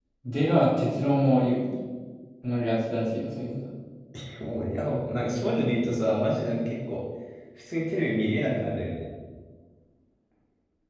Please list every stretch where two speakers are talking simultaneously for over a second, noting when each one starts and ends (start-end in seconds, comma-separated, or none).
none